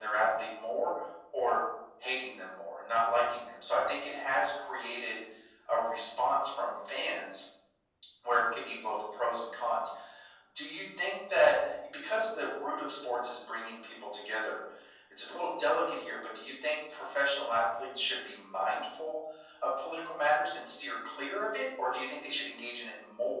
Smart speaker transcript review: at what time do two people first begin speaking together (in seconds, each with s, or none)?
none